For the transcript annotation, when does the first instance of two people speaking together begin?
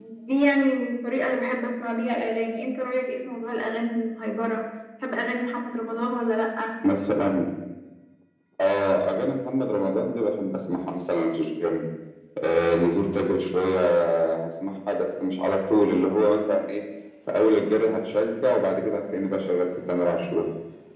none

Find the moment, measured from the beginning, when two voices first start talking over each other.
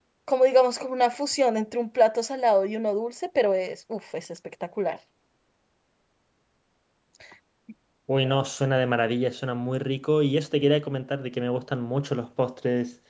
none

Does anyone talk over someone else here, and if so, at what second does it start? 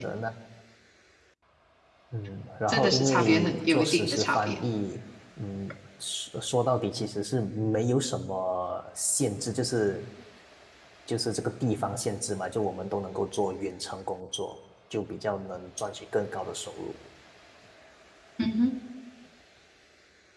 2.7 s

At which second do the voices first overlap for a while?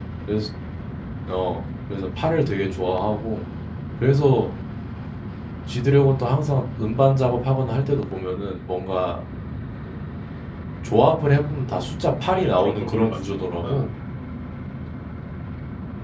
12.3 s

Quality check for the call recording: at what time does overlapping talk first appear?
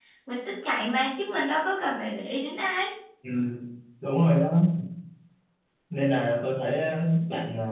none

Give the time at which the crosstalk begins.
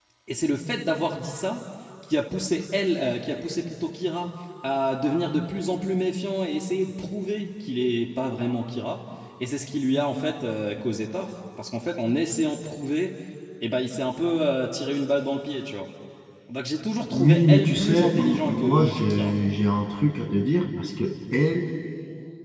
17.1 s

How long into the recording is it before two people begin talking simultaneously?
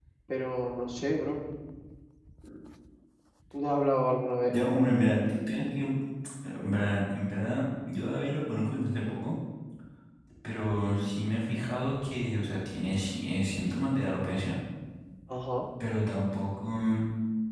none

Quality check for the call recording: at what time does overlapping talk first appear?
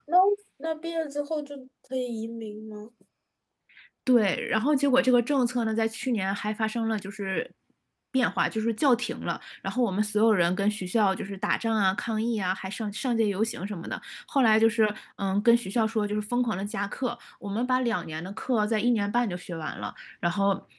none

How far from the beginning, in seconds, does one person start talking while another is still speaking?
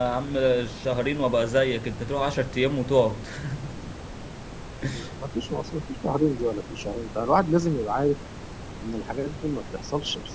none

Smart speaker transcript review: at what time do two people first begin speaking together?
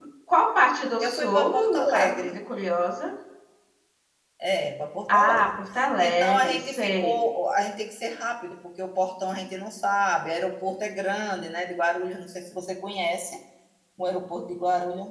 1.0 s

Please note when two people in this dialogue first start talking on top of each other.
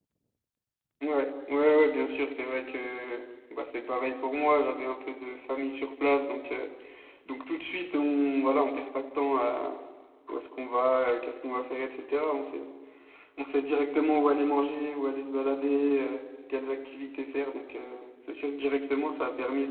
none

